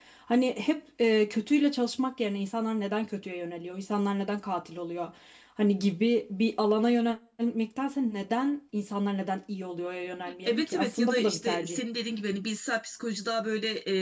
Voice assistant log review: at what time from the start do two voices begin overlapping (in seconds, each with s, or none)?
10.3 s